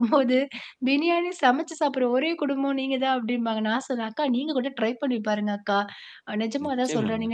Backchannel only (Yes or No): Yes